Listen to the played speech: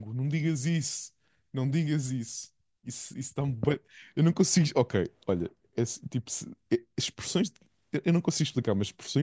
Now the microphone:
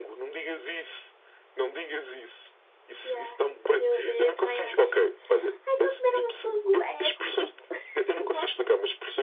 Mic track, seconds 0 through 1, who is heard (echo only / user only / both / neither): echo only